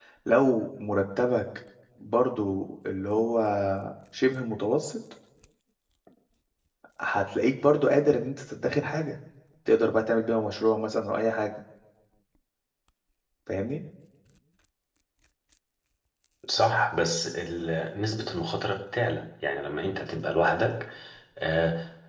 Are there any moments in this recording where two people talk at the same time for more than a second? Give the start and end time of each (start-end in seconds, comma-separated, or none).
none